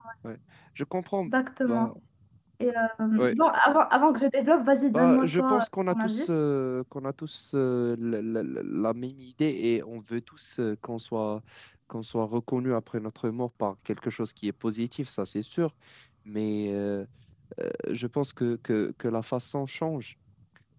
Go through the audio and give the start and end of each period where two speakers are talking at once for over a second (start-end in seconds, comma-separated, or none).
4.9-6.3